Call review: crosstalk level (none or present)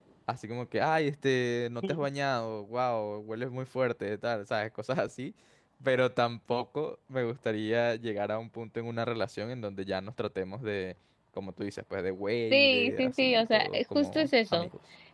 present